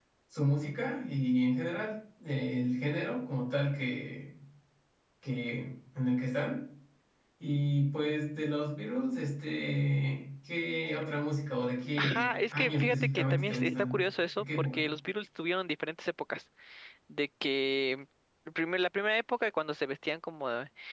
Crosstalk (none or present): present